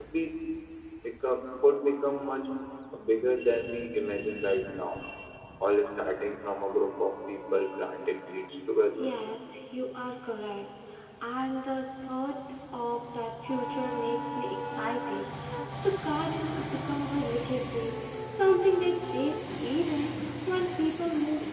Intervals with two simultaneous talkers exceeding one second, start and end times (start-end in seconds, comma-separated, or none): none